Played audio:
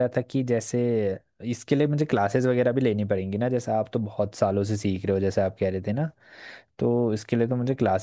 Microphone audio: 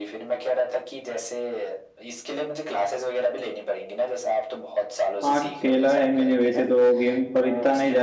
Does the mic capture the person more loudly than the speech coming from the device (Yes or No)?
Yes